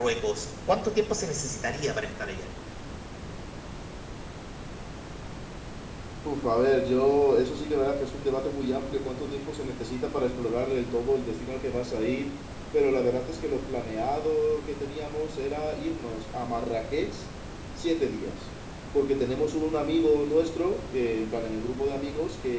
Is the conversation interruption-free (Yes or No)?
Yes